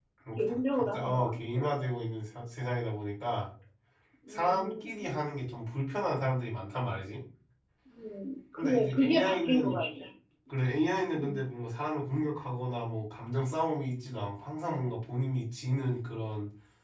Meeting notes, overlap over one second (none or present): present